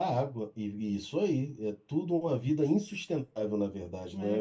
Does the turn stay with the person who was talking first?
No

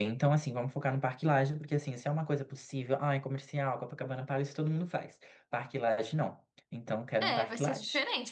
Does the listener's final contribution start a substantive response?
Yes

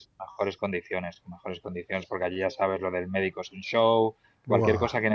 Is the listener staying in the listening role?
Yes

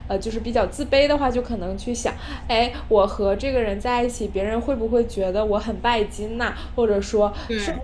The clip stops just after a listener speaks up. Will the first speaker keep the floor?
Yes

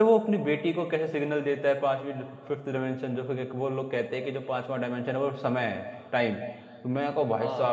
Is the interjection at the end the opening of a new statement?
No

